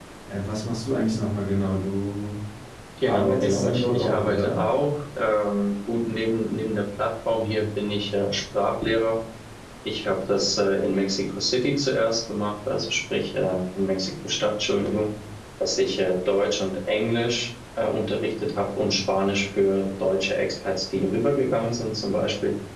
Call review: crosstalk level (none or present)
present